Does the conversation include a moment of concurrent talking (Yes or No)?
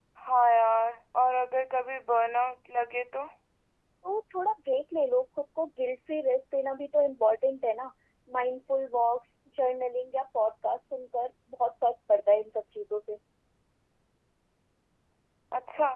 No